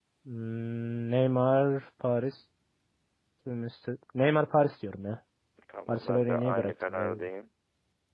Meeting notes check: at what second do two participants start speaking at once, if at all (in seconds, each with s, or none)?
5.9 s